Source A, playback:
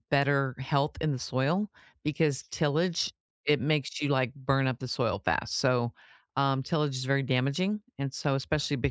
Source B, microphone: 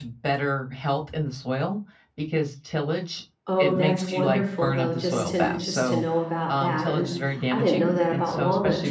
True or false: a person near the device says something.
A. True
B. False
A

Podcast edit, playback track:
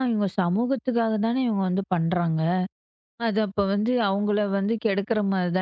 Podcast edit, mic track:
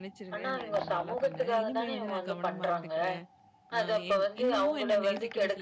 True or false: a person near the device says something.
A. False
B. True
B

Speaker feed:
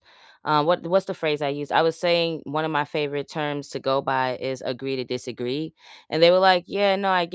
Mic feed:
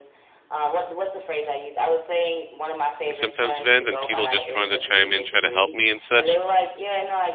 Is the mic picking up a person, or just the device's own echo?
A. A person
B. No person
A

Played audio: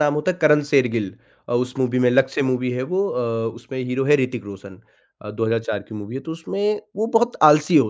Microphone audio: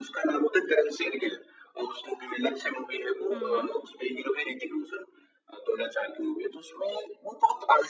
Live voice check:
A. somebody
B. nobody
A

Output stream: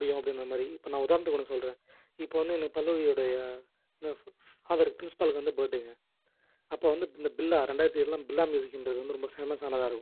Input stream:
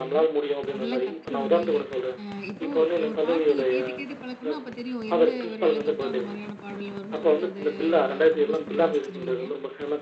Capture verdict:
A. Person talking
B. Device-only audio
A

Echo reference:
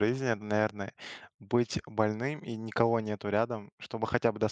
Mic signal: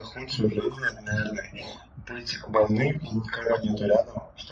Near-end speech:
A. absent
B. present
A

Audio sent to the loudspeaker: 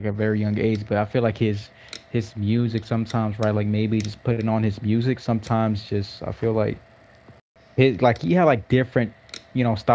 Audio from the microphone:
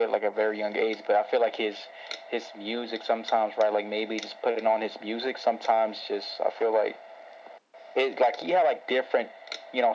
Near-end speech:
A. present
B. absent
B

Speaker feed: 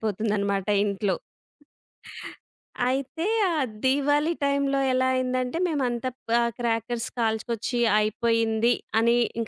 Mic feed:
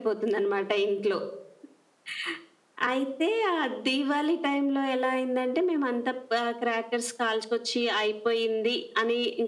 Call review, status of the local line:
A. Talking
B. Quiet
B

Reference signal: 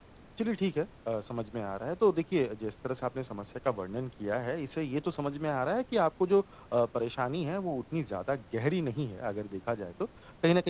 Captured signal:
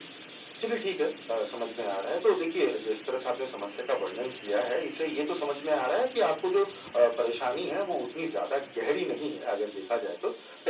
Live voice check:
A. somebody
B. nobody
B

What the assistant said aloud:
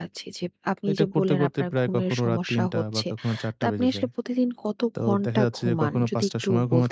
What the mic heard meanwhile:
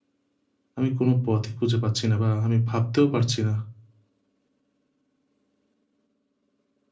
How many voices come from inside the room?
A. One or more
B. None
A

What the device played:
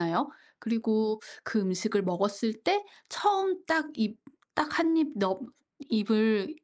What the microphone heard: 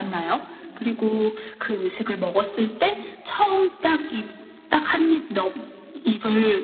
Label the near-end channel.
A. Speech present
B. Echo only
B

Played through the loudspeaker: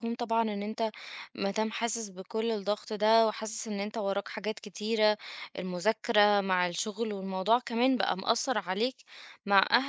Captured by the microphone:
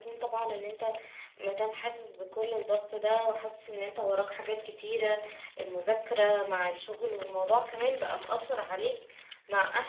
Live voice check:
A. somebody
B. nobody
B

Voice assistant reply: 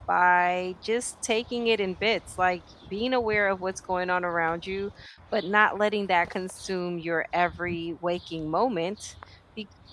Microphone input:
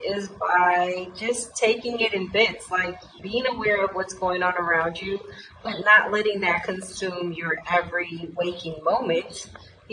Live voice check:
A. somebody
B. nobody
B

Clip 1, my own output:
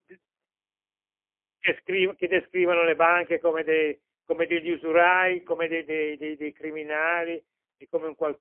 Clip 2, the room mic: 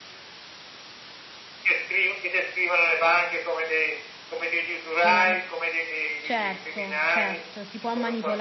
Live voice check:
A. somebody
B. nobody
A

